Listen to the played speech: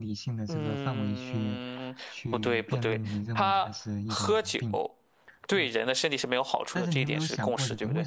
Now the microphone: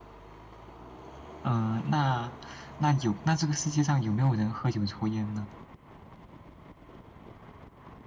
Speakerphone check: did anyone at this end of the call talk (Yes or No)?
Yes